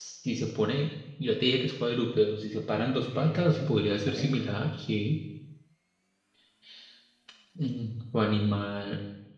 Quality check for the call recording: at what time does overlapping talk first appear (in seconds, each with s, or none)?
3.1 s